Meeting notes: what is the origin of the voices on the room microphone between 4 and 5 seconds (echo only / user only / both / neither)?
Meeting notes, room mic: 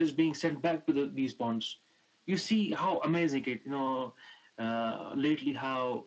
echo only